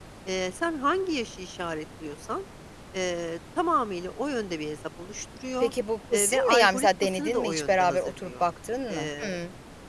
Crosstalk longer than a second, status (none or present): present